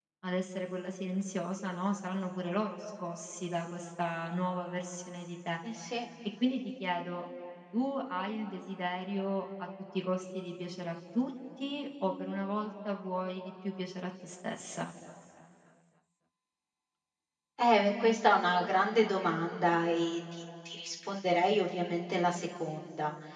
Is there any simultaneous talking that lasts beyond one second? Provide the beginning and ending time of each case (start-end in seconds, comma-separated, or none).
none